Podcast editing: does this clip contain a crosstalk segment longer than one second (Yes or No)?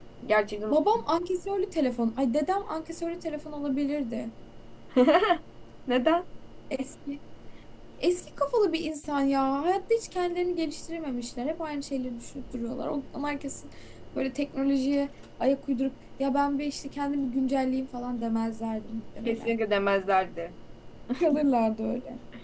No